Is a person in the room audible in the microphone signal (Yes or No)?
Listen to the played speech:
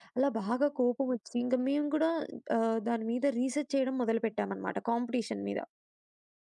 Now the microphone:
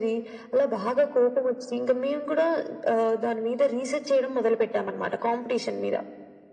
No